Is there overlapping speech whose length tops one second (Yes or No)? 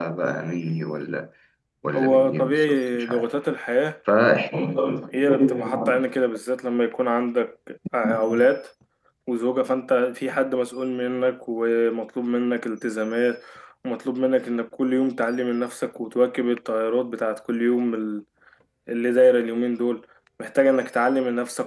Yes